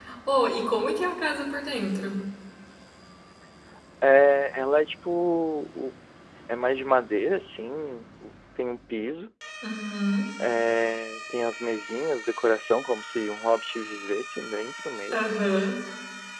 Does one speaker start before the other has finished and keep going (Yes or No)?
No